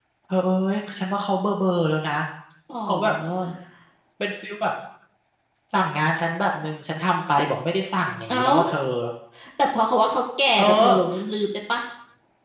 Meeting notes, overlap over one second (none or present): none